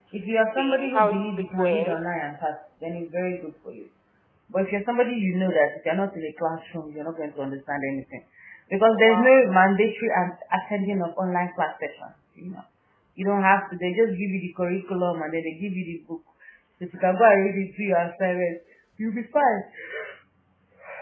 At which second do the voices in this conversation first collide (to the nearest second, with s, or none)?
1 s